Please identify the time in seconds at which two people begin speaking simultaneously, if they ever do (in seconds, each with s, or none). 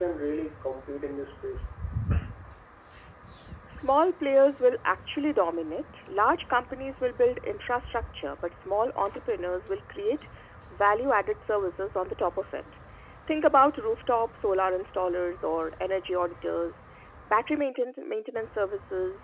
none